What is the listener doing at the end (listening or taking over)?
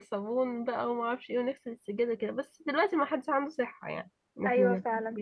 taking over